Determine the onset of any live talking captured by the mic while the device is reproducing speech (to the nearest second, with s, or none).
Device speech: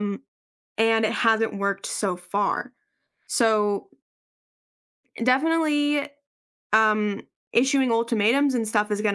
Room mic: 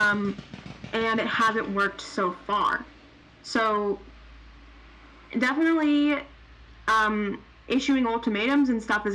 none